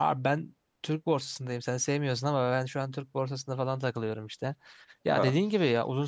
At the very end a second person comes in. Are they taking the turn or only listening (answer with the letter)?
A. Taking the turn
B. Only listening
B